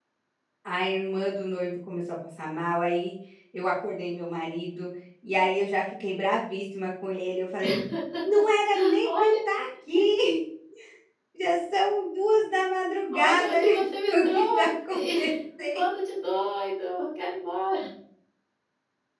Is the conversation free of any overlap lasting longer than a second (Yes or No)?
No